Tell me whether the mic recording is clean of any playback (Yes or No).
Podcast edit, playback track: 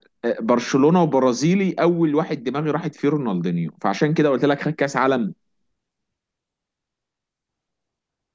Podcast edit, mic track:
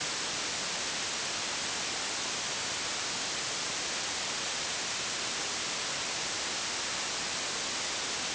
Yes